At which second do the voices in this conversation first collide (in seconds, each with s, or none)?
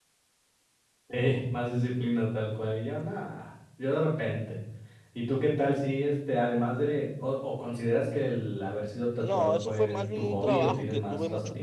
9.2 s